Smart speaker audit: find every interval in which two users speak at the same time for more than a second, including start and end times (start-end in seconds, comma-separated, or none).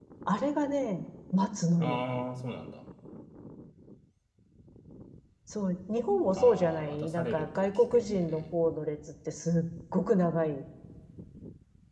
6.4-8.4